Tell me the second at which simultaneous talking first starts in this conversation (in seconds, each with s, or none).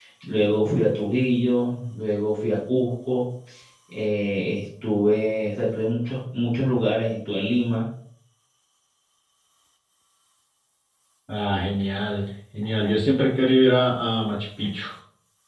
none